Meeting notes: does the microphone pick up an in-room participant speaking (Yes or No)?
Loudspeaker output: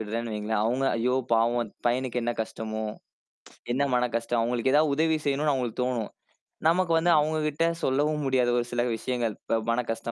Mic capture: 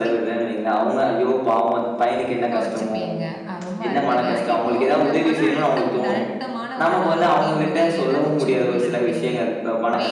Yes